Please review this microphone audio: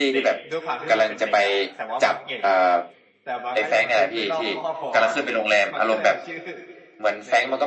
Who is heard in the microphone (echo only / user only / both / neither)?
both